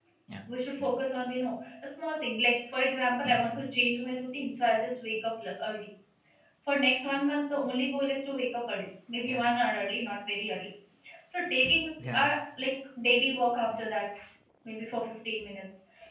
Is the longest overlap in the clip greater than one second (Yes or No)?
No